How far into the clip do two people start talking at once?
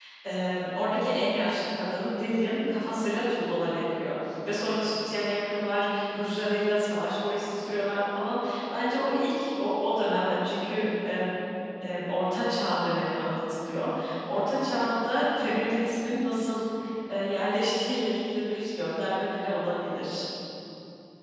none

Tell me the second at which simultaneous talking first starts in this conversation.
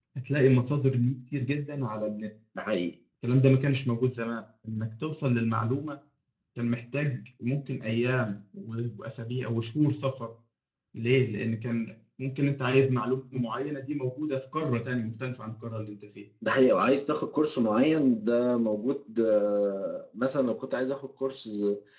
none

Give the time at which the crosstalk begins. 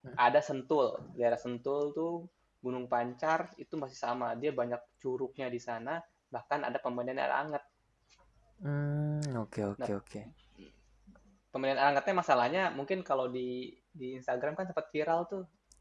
none

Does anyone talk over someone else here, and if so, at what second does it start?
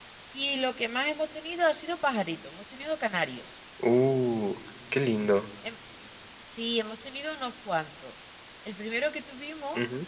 none

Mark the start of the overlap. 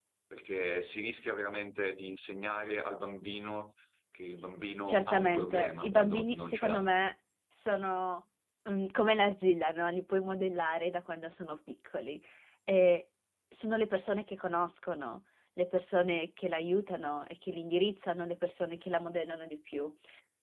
5 s

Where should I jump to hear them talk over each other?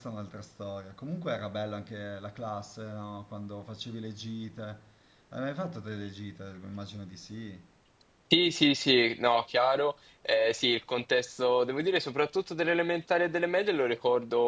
none

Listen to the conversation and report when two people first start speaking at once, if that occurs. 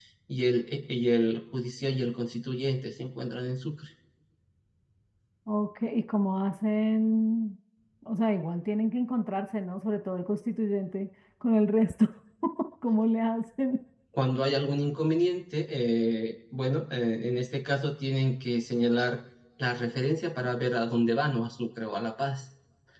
none

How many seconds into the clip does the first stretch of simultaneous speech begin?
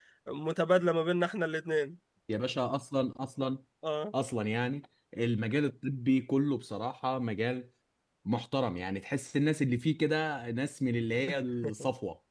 none

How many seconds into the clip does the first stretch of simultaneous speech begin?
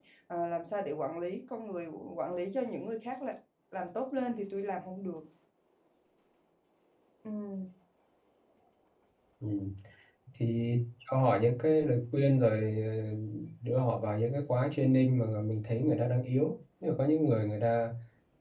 none

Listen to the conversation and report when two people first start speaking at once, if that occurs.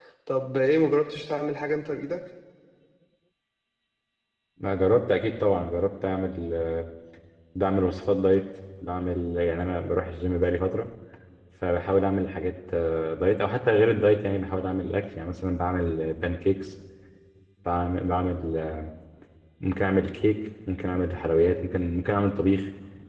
none

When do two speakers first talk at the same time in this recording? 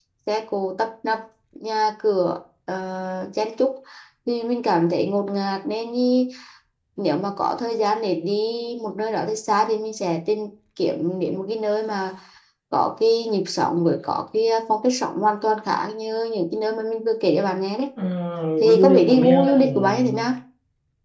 19 s

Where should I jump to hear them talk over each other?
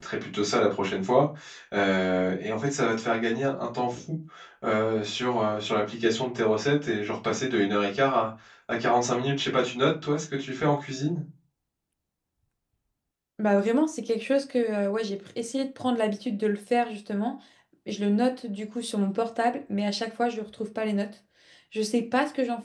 none

